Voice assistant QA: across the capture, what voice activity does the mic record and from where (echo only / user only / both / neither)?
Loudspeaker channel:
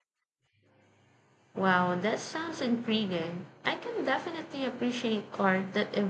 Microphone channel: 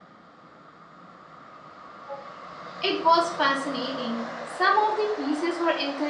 user only